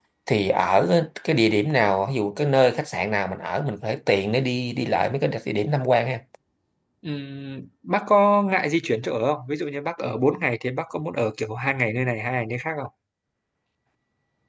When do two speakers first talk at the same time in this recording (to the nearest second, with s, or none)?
none